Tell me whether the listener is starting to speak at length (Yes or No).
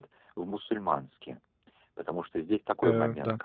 No